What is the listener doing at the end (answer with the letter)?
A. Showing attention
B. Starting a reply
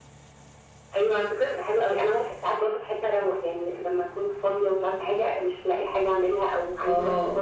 A